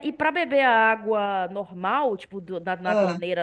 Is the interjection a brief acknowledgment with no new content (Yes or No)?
Yes